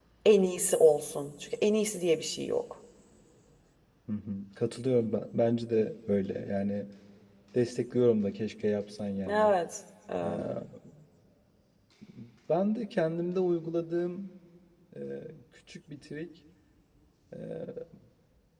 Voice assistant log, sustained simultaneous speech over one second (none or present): none